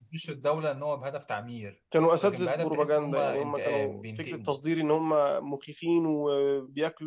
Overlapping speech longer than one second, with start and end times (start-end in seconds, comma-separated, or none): 2.2-4.5